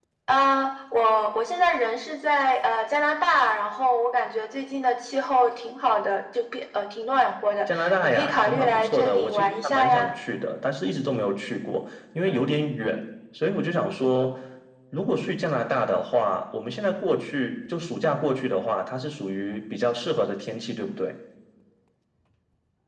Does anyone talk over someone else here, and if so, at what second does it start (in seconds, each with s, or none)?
7.7 s